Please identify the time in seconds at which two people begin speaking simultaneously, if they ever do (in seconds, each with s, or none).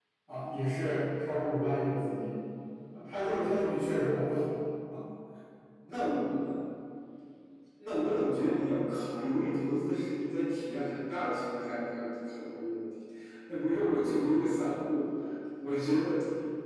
none